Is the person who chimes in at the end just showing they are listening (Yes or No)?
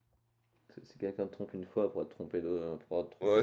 No